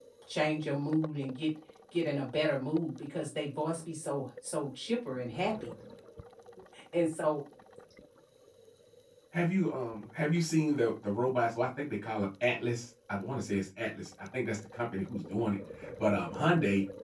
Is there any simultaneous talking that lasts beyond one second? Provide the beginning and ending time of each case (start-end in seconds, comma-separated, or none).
none